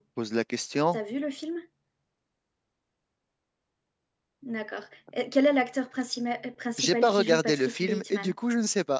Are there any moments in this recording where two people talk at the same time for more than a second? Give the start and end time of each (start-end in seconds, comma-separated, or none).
6.8-8.3